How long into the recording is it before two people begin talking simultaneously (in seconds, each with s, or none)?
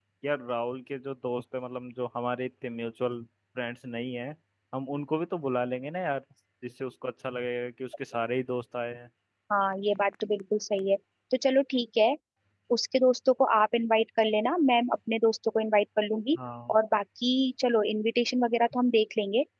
none